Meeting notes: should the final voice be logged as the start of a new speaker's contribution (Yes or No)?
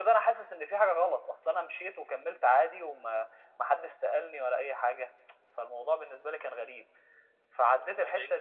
No